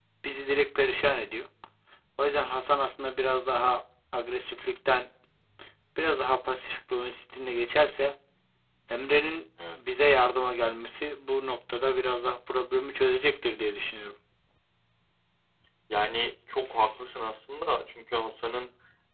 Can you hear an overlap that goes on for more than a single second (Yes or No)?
No